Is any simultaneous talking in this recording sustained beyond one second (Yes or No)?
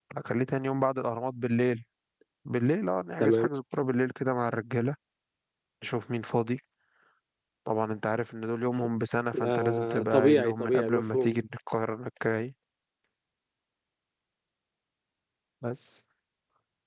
Yes